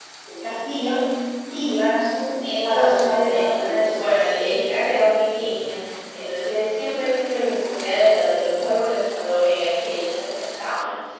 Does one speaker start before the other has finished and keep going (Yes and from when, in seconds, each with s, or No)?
Yes, from 2.4 s